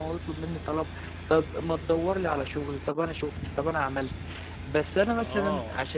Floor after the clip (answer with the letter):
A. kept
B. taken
B